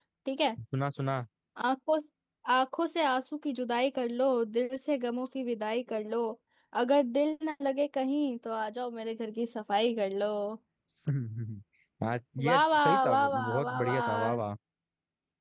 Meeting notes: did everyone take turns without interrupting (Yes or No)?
No